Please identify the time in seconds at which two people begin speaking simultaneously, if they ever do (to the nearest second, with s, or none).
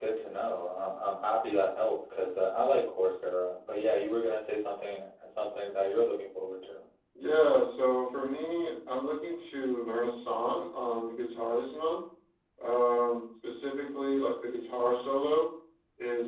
none